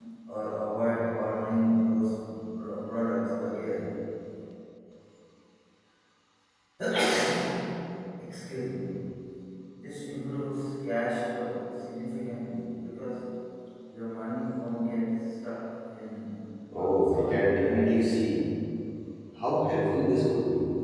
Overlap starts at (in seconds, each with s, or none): 16.8 s